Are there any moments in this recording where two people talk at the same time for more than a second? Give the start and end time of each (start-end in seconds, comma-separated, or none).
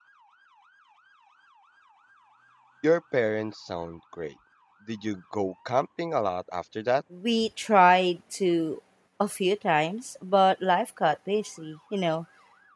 none